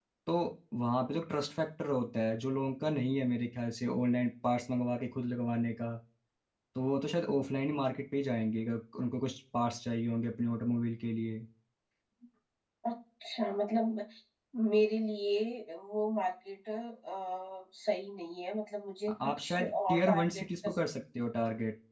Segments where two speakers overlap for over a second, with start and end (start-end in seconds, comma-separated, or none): 19.4-20.7